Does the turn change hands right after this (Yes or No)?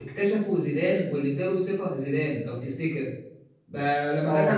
No